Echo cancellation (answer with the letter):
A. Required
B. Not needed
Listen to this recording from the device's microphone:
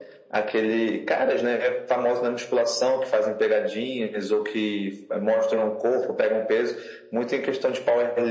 A